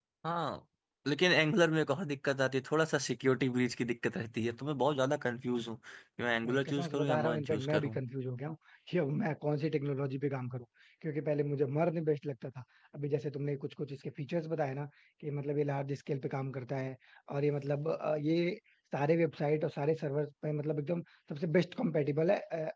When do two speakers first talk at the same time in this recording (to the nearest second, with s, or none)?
6 s